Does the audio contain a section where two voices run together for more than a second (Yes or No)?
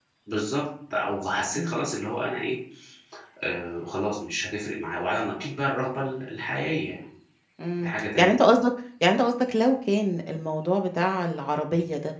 No